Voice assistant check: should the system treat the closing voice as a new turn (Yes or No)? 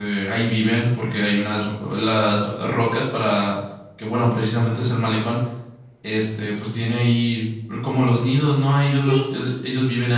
No